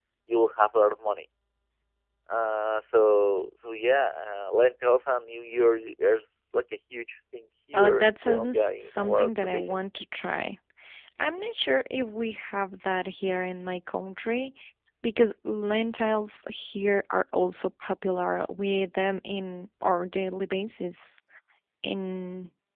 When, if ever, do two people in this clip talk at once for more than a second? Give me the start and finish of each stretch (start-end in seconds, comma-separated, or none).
7.7-9.8